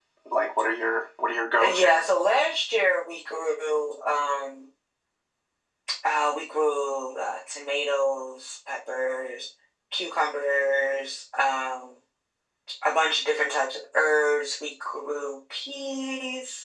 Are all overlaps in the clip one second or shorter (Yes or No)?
Yes